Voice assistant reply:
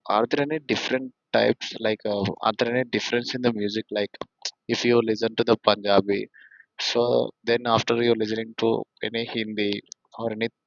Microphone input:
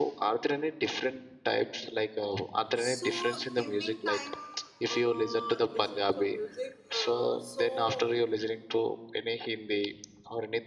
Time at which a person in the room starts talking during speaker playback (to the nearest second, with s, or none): 3 s